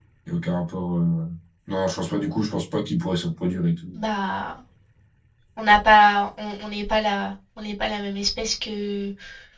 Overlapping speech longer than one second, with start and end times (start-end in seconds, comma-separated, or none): none